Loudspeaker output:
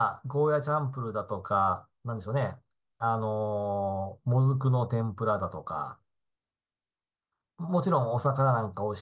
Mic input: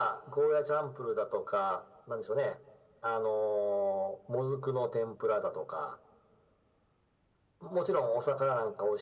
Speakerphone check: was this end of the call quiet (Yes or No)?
Yes